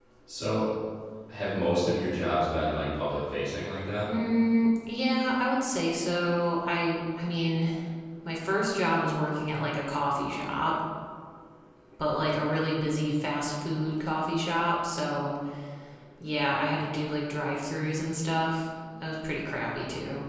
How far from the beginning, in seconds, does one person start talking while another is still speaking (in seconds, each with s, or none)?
none